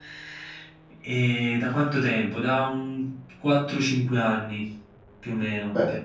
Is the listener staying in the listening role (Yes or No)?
Yes